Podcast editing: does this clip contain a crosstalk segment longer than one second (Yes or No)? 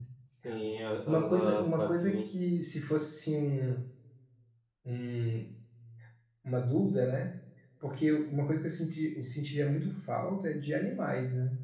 Yes